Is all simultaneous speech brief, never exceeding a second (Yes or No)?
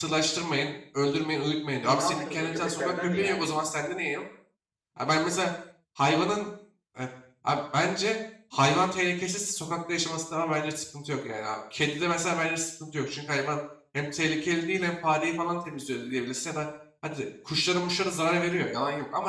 No